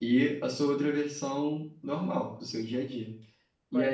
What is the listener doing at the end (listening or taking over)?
taking over